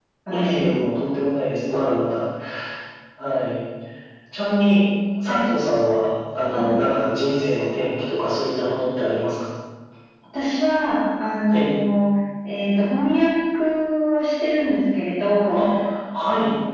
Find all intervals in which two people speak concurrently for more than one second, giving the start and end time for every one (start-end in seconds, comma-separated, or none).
none